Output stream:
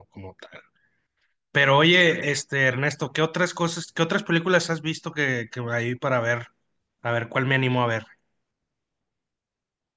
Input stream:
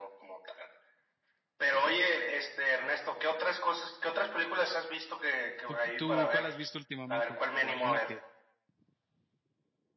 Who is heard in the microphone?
both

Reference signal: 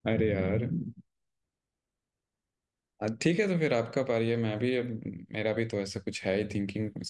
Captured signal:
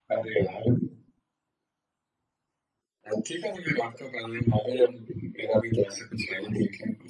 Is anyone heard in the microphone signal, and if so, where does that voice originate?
echo only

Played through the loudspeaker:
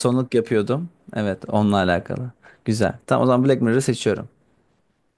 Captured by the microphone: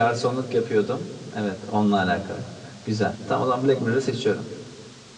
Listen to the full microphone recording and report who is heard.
echo only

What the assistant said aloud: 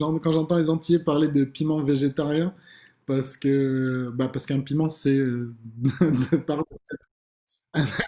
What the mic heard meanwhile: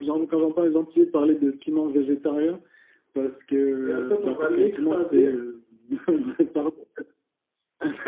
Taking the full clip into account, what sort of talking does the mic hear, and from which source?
both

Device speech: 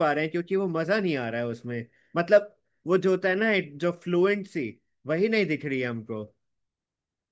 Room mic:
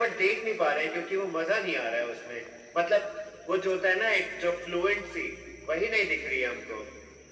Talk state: echo only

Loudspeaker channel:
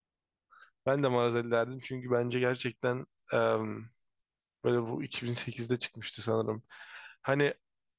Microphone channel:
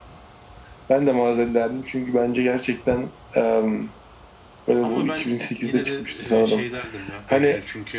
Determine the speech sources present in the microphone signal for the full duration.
both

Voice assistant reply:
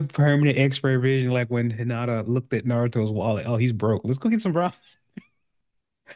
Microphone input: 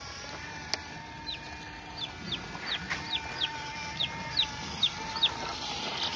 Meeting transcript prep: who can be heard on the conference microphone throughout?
neither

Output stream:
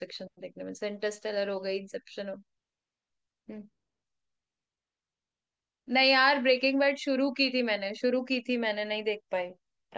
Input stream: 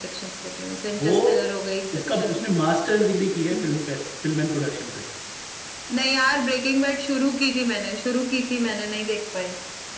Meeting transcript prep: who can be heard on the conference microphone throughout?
both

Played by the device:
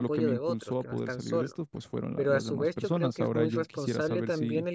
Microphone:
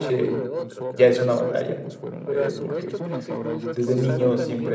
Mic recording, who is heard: both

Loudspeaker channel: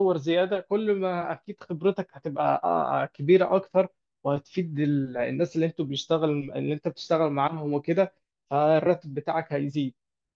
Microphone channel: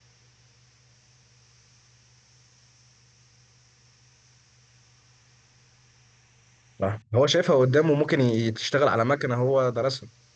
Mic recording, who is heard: user only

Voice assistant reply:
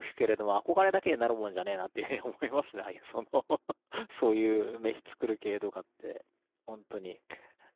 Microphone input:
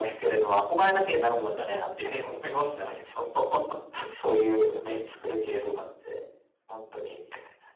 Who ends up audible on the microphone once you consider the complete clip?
echo only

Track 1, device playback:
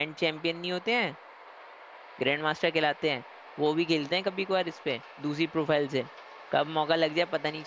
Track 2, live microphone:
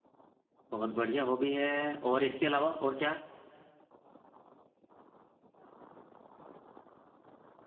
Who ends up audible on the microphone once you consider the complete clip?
user only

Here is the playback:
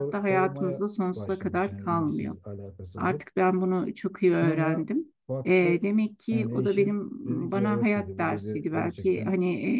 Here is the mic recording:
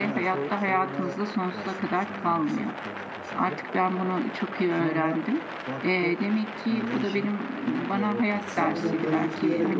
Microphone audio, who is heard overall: both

